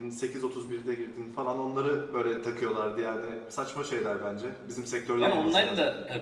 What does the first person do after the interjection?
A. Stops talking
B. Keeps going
A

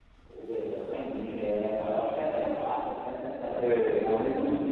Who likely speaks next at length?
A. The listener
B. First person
B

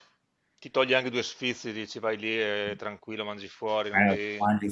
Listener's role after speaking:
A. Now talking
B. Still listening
A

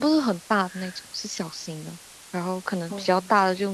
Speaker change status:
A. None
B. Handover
A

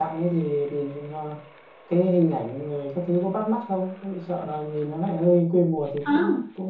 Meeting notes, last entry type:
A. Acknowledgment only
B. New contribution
B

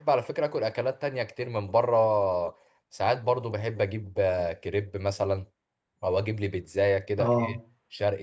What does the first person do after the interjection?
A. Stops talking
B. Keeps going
B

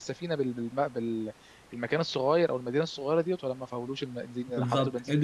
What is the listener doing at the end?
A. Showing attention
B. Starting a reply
B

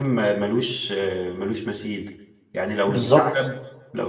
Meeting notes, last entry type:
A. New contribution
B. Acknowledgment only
B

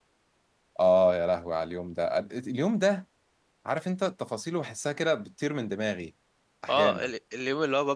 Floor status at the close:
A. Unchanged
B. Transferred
B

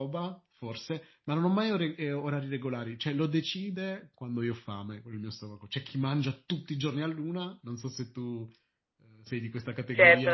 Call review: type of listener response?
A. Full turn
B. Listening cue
A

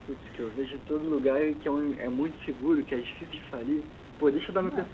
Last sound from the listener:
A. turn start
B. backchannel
B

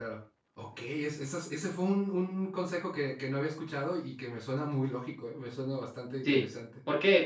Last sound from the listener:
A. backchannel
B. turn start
B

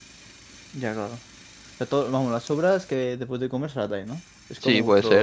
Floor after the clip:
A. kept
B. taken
B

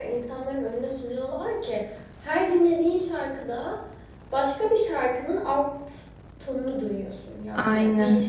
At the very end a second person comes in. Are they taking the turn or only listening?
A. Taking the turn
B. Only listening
B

